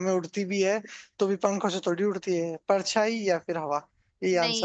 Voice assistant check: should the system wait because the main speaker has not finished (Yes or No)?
No